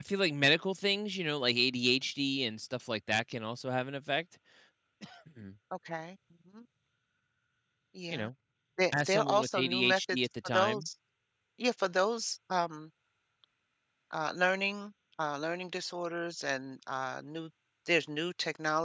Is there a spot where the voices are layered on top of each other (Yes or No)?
Yes